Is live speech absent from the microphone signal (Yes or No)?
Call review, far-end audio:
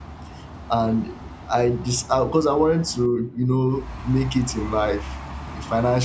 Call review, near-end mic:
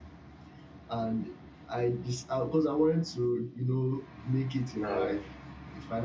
No